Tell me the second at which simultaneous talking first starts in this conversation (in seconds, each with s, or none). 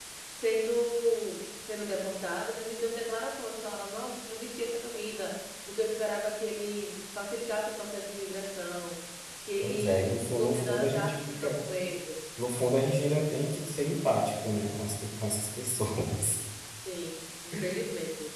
9.6 s